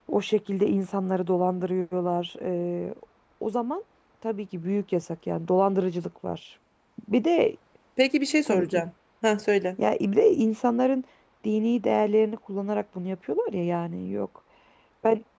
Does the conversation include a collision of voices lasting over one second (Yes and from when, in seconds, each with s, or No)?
No